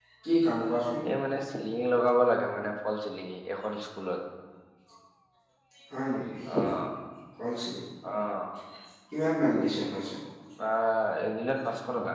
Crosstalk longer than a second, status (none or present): none